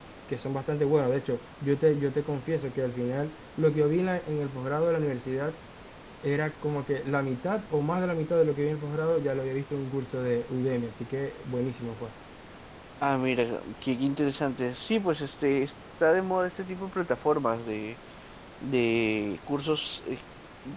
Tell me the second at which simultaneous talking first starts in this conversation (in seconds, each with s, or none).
none